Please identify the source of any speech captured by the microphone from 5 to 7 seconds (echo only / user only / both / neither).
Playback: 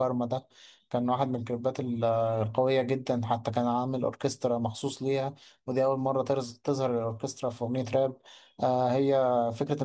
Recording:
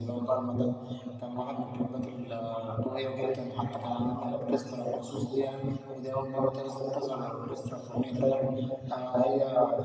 echo only